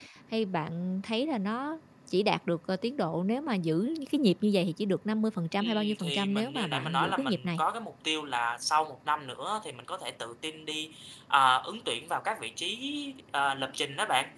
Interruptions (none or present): present